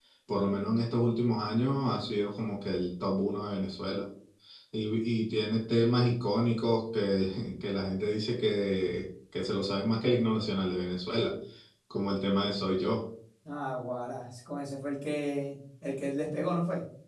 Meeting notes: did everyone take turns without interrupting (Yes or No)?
Yes